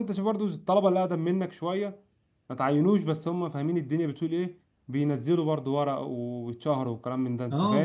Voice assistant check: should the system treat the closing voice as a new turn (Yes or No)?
Yes